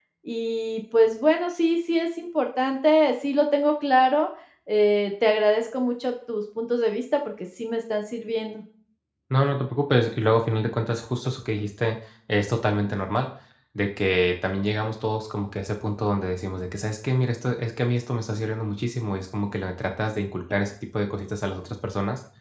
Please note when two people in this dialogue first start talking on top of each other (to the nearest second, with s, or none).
none